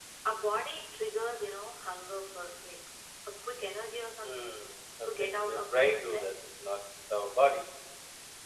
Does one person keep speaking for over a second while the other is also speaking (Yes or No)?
Yes